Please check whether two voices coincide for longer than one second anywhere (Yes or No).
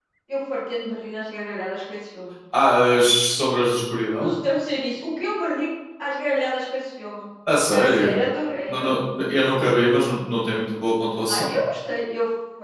No